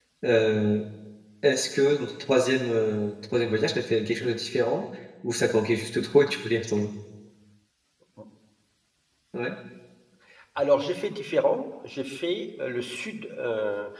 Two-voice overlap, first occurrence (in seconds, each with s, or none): none